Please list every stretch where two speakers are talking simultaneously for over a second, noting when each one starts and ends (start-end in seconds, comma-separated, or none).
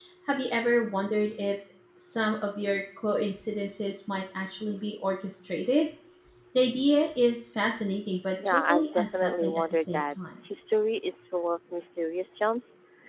8.5-10.2